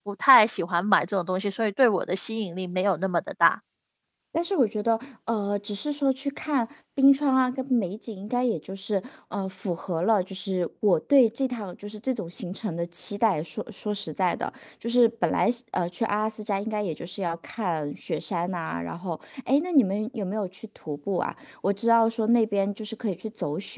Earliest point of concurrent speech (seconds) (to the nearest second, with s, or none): none